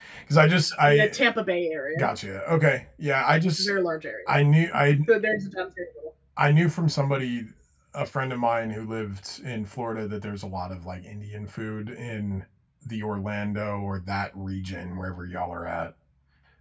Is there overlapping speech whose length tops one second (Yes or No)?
No